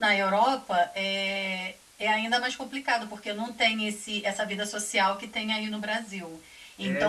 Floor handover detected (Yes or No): No